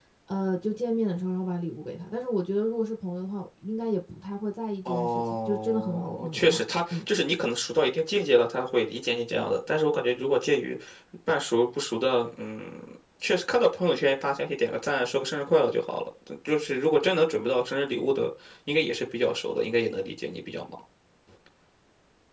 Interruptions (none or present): present